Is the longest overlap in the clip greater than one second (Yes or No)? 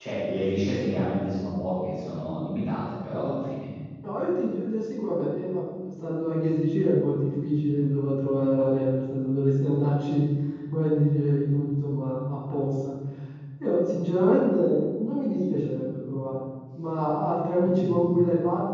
No